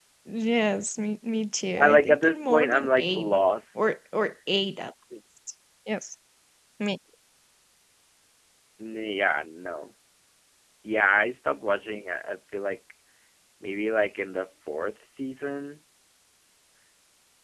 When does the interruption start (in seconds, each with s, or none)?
1.8 s